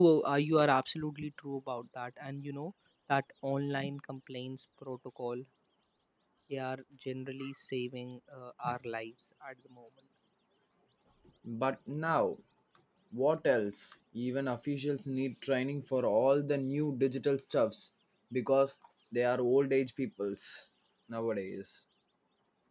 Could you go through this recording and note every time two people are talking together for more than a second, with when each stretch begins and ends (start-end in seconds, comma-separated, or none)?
none